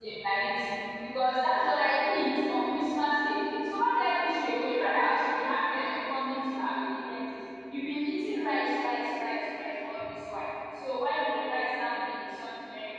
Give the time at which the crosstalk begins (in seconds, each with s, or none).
none